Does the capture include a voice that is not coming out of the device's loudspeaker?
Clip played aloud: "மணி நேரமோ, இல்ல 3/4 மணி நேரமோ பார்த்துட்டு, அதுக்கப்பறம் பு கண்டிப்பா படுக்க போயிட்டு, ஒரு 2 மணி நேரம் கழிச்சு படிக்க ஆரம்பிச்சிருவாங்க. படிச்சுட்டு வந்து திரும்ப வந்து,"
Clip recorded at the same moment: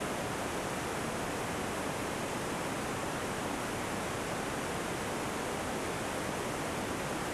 No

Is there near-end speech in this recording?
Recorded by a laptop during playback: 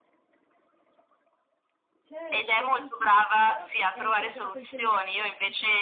Yes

